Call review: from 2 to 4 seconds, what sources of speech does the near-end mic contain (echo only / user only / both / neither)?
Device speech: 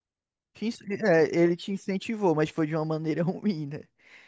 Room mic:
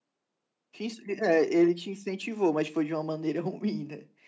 echo only